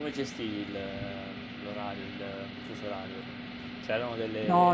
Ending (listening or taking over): taking over